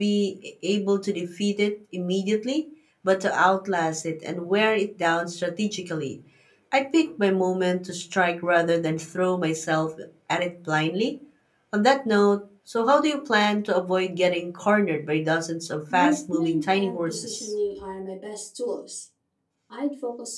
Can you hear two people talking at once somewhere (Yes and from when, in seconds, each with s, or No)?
Yes, from 15.9 s